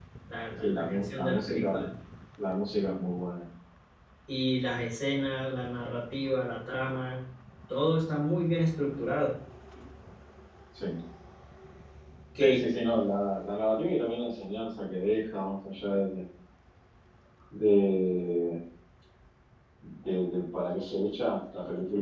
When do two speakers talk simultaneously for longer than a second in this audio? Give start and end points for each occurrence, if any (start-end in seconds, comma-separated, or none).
0.6-1.8